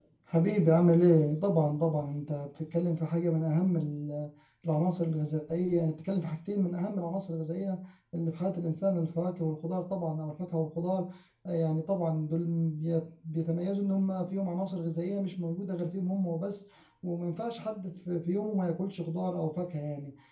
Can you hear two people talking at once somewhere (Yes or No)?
No